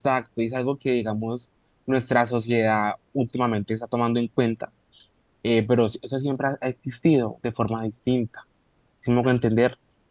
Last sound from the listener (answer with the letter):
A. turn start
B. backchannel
B